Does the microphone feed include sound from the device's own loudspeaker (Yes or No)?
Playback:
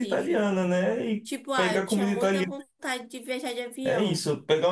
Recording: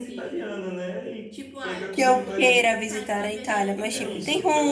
Yes